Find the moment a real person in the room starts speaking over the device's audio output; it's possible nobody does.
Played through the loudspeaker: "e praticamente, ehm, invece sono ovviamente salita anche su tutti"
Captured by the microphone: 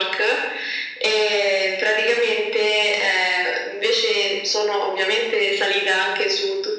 none

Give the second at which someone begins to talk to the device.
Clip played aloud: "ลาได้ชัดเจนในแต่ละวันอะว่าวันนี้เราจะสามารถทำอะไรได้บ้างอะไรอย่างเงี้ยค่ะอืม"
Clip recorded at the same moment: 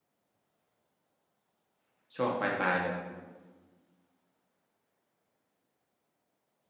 2.2 s

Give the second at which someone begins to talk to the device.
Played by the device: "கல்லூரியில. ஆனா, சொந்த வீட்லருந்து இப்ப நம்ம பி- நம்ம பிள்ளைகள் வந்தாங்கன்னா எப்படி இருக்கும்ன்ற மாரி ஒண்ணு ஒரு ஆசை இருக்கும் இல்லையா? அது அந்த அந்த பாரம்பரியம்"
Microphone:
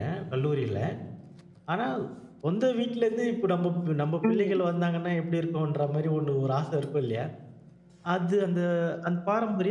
4.2 s

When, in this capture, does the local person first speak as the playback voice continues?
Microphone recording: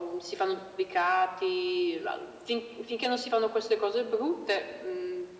none

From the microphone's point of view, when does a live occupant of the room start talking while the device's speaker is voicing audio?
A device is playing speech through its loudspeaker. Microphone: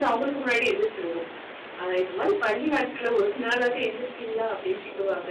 none

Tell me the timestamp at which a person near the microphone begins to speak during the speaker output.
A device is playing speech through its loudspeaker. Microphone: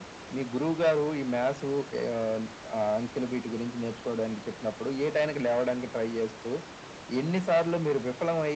none

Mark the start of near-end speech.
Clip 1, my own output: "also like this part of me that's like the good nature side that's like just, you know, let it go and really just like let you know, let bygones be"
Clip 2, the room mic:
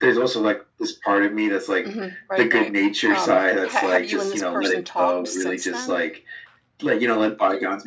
1.8 s

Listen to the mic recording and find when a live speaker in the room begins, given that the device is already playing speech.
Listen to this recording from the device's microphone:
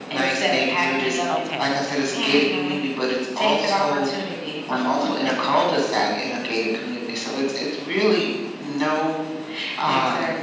1.3 s

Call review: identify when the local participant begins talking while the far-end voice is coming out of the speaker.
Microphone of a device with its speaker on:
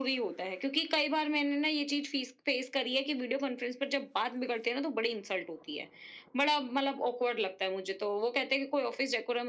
none

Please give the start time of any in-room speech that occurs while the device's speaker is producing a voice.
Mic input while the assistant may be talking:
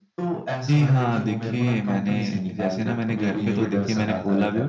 0.7 s

